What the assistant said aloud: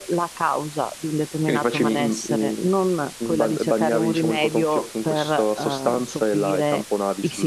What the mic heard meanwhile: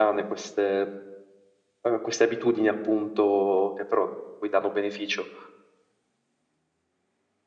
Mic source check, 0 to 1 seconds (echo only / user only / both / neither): user only